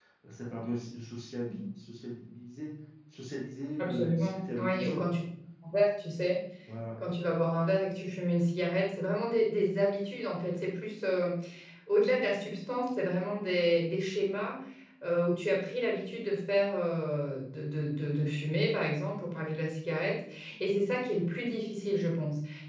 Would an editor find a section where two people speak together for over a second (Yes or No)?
Yes